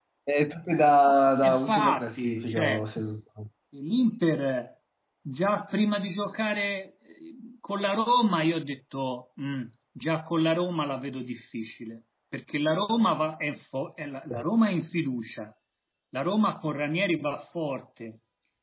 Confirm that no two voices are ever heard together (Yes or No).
No